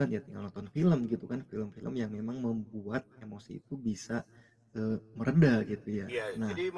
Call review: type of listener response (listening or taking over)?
taking over